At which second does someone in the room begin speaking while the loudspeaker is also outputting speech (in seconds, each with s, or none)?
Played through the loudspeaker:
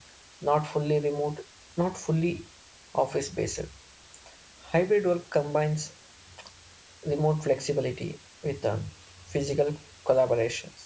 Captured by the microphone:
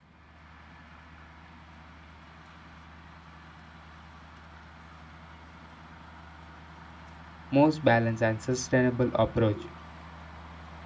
7.5 s